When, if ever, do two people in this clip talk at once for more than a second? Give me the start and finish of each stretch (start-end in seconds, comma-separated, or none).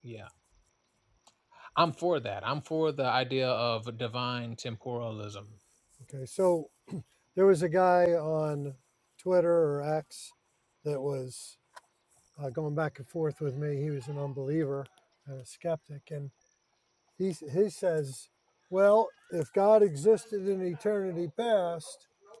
none